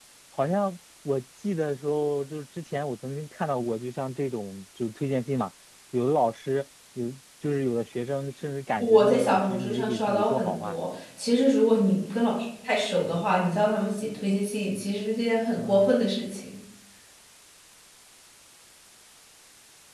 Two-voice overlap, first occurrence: 8.8 s

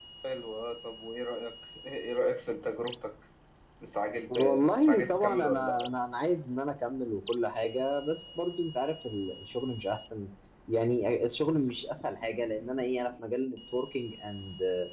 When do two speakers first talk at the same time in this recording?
4.3 s

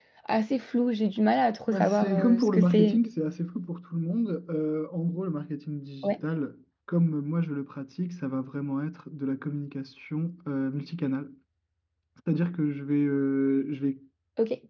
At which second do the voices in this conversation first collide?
1.7 s

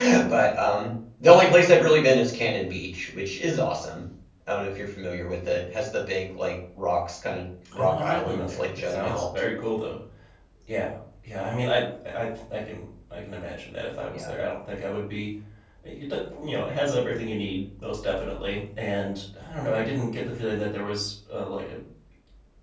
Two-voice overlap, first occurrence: 7.7 s

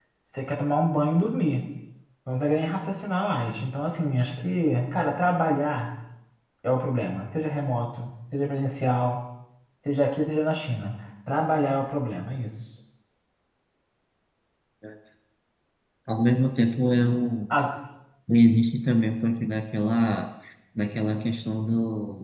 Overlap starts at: none

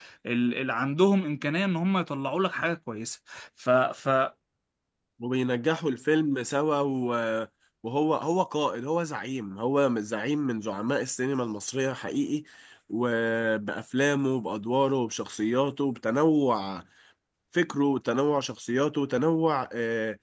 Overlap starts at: none

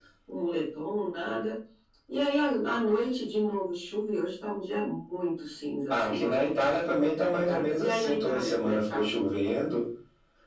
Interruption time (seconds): 5.9 s

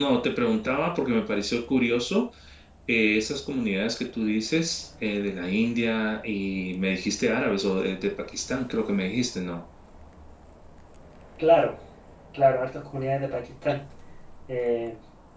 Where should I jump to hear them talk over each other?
none

